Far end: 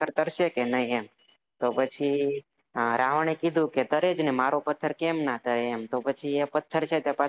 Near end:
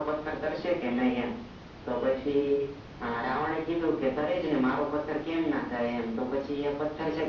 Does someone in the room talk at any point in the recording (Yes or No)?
No